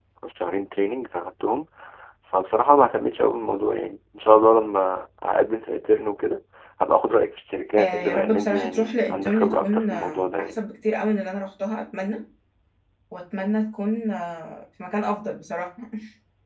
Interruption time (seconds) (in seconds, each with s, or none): 7.8 s